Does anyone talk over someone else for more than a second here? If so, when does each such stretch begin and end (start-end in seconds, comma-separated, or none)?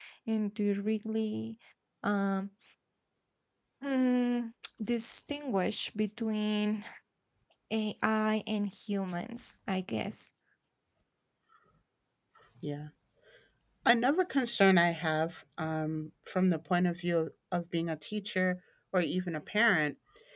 none